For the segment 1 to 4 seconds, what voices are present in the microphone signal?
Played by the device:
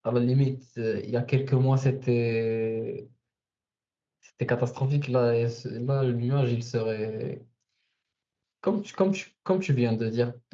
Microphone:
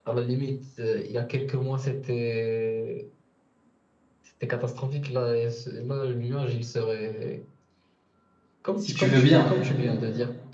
echo only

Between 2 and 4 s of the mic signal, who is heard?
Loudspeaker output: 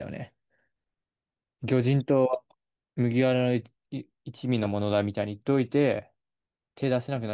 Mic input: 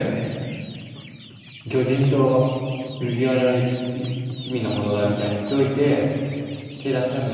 echo only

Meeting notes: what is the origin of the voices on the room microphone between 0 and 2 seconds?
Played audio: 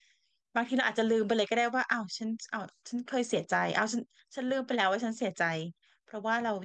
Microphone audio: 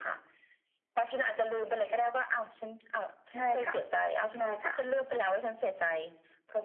echo only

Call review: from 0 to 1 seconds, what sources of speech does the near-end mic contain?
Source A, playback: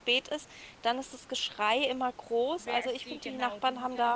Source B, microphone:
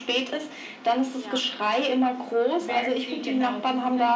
echo only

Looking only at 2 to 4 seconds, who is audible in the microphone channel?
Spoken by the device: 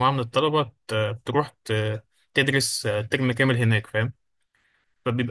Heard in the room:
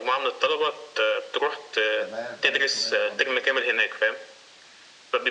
both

